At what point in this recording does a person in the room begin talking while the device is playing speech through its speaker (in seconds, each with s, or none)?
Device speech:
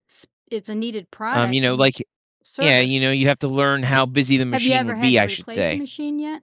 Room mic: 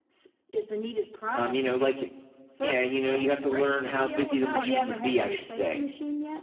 3.0 s